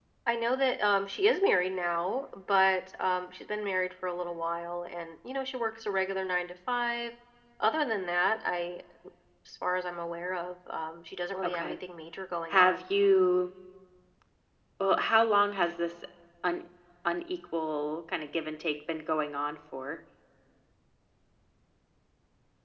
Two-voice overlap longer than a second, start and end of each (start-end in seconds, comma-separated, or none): none